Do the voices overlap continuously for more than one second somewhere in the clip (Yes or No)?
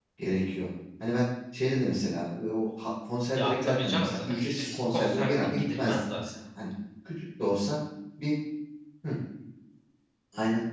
Yes